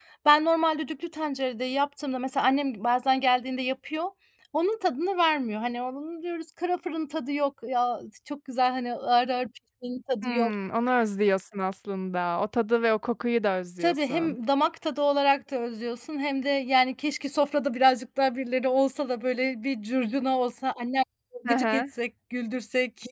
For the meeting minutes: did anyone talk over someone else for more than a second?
No

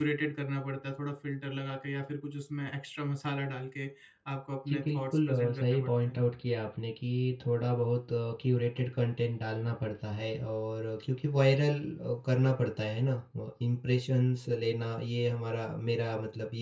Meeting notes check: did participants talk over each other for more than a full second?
Yes, from 4.7 s

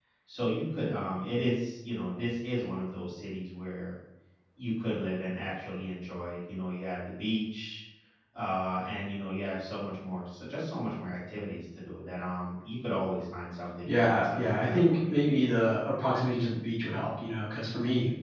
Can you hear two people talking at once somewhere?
Yes, from 13.8 s

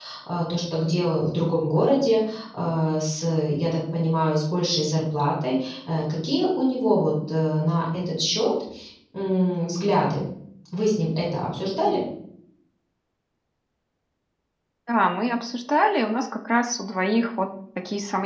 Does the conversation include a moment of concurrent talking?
No

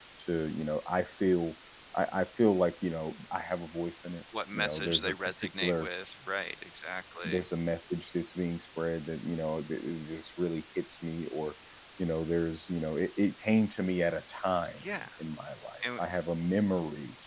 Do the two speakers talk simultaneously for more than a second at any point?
Yes, from 4.5 s

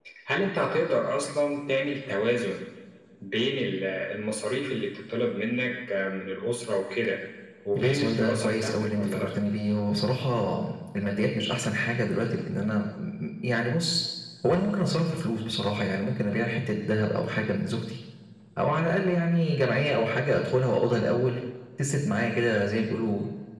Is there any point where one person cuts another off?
Yes, from 7.8 s

